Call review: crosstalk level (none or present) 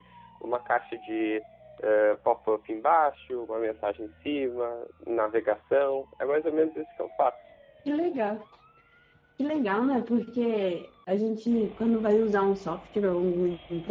none